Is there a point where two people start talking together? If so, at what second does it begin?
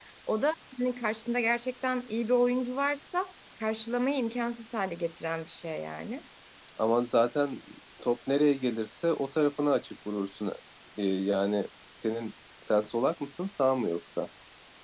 none

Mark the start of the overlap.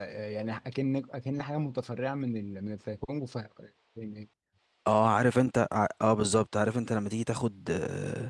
none

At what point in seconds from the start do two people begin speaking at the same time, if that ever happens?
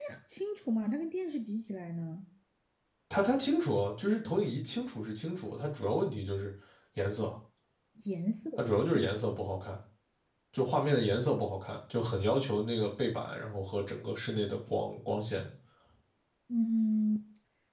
none

